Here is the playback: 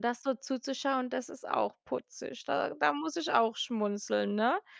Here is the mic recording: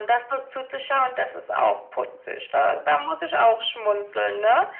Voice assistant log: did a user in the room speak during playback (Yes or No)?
No